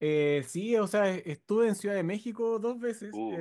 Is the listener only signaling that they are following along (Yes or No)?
Yes